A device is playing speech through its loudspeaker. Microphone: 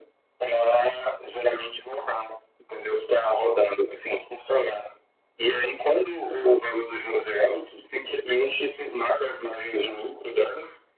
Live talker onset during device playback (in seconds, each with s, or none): none